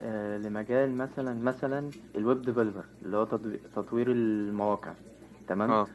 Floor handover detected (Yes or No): No